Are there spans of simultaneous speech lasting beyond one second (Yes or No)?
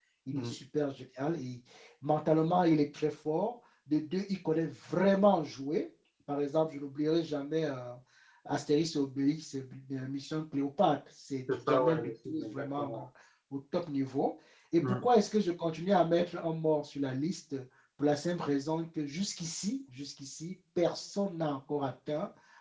Yes